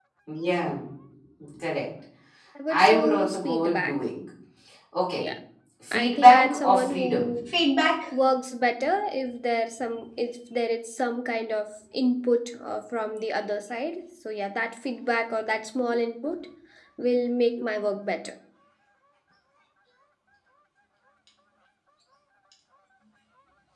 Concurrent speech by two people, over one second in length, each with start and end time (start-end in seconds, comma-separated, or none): 2.7-3.9, 5.9-7.3